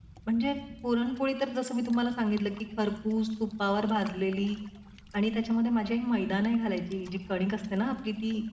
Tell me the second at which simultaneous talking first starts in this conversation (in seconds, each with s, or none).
none